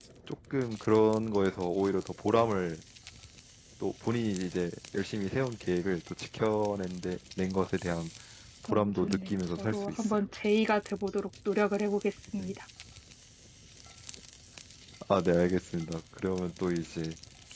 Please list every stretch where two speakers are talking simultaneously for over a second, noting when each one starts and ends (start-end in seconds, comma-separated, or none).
8.7-10.2